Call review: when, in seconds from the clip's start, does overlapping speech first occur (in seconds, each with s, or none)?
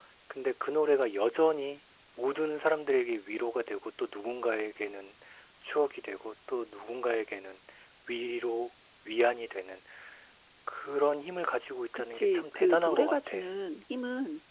11.9 s